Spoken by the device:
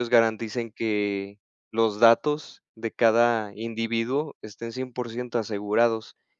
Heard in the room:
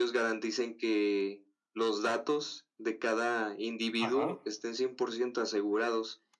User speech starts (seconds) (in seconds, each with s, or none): 4.0 s